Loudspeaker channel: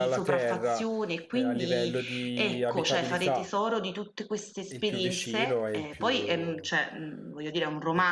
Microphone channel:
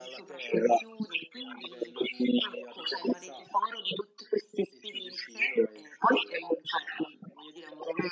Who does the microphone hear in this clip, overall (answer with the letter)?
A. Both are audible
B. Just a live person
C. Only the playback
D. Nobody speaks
C